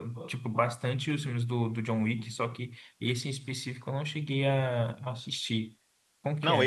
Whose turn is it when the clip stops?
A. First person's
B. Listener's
B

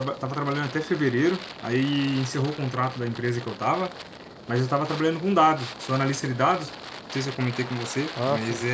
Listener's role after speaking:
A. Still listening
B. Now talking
A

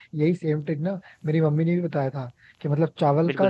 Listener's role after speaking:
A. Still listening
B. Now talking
A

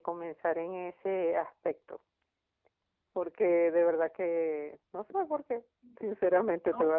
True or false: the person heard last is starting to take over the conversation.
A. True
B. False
B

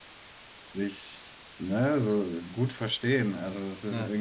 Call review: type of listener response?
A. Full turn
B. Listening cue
B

